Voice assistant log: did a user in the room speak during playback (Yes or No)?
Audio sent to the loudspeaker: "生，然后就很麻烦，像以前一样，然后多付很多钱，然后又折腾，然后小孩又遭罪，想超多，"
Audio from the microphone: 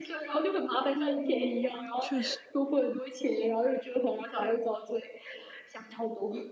Yes